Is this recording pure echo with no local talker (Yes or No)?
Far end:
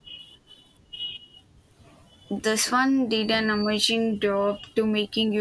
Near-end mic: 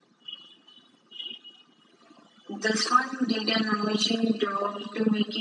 Yes